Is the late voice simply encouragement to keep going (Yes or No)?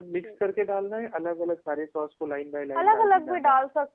No